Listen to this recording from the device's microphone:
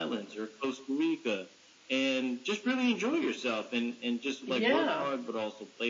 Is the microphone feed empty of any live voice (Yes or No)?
No